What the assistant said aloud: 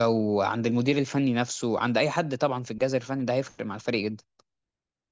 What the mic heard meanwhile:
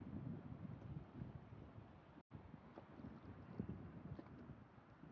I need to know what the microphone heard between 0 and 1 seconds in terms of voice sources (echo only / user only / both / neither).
neither